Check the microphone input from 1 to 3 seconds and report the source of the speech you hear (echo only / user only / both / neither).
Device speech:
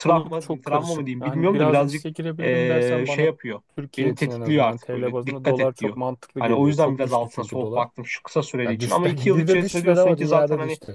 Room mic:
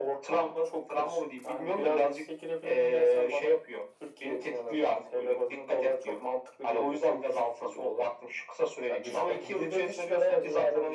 echo only